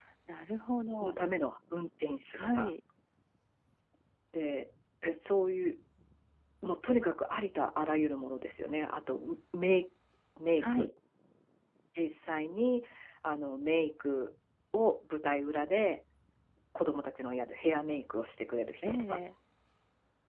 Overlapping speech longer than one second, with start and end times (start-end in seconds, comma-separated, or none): none